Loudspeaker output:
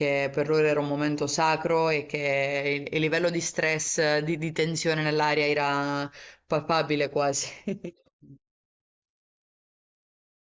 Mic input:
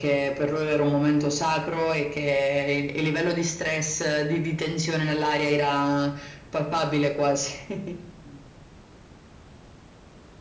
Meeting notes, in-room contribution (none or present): none